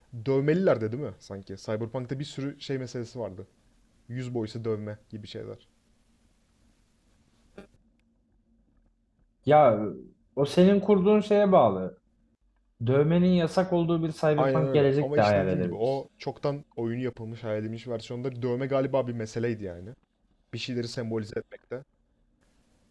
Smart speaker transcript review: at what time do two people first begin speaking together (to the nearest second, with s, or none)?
14 s